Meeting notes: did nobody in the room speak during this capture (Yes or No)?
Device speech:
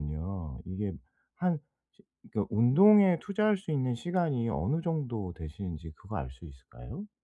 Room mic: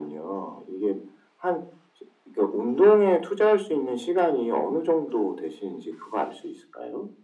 Yes